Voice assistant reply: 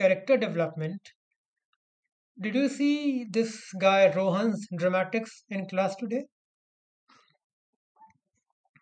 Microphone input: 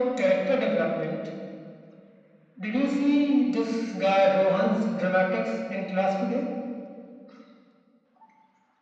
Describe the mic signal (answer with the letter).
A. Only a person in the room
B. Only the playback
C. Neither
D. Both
B